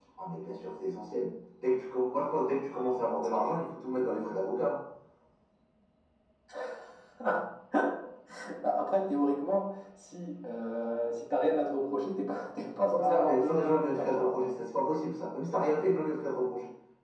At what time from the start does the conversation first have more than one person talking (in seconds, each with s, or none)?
12.9 s